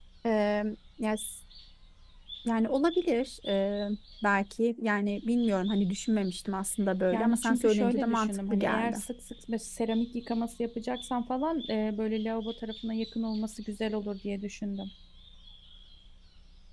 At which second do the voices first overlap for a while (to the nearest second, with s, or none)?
7 s